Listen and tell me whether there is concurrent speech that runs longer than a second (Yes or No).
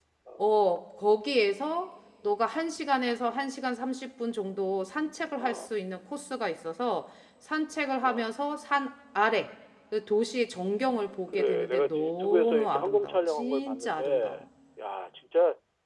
Yes